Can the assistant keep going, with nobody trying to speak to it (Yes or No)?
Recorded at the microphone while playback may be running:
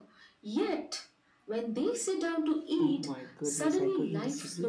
No